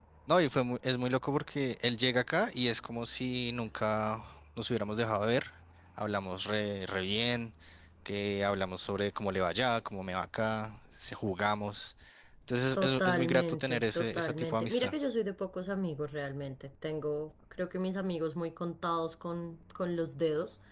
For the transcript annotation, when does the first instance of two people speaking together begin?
12.7 s

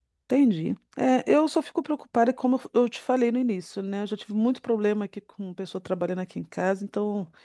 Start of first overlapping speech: none

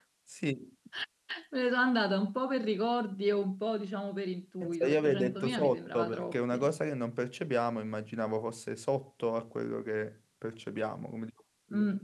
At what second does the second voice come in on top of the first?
4.6 s

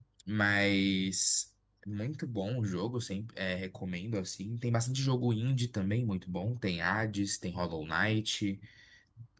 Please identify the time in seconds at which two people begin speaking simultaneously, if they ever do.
none

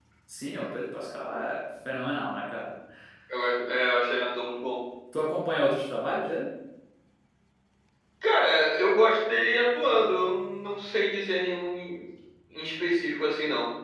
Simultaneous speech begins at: none

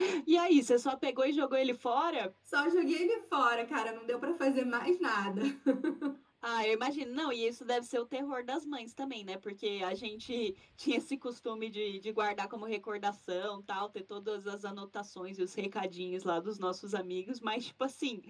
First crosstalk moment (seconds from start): none

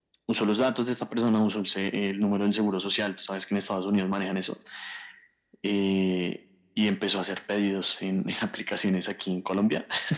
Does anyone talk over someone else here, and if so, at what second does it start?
none

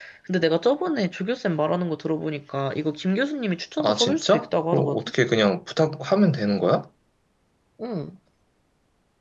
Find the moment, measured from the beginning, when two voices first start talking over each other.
3.8 s

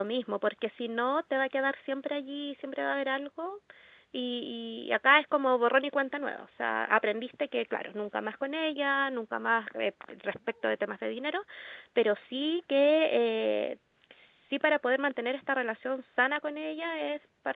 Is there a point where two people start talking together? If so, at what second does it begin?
none

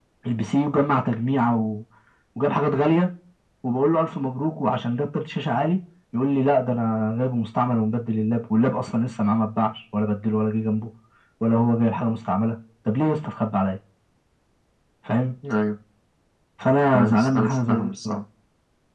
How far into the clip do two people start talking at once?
16.9 s

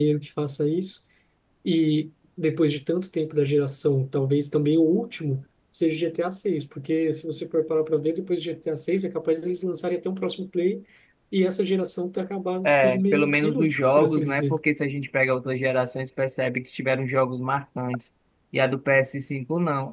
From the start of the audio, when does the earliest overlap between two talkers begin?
12.6 s

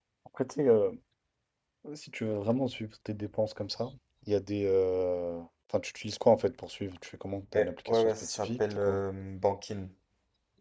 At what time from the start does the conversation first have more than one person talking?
7.5 s

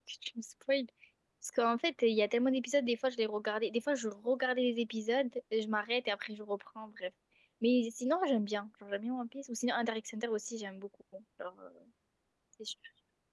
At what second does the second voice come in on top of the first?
none

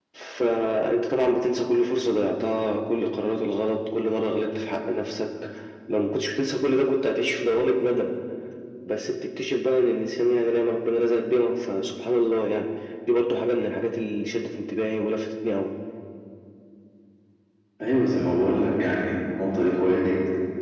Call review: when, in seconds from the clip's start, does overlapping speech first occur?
none

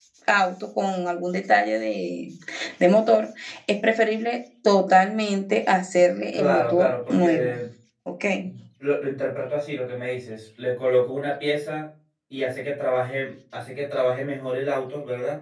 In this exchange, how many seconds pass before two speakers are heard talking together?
6.3 s

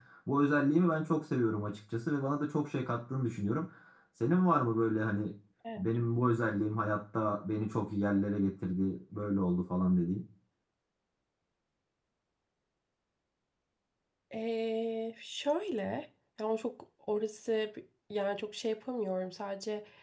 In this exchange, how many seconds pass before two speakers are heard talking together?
none

